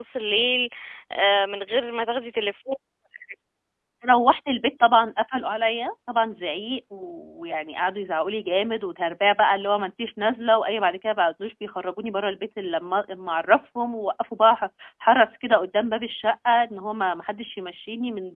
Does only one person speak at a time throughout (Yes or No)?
Yes